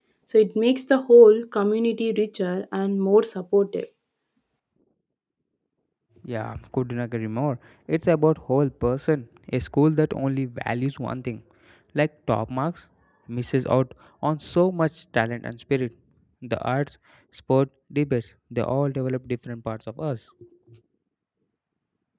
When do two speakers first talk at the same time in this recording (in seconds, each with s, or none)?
none